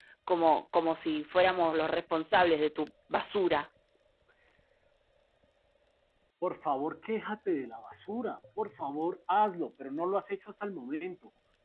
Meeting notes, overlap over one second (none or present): none